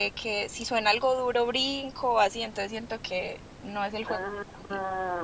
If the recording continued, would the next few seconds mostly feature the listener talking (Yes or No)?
Yes